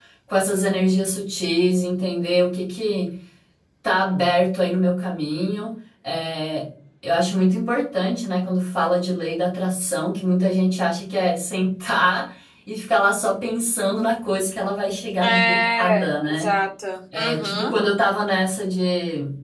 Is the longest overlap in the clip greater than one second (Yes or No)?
Yes